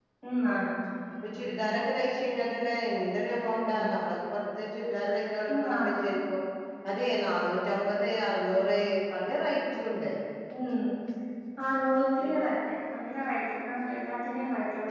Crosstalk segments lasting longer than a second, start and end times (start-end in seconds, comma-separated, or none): none